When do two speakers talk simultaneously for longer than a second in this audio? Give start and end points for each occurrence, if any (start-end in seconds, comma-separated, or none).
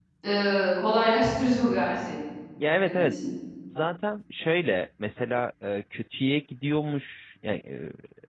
none